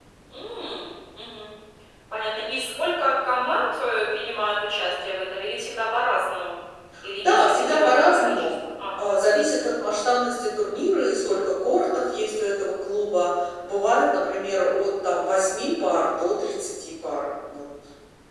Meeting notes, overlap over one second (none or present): present